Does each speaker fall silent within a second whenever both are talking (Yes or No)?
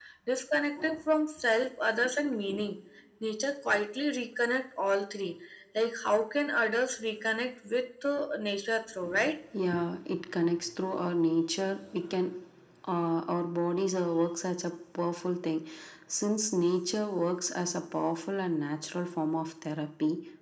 Yes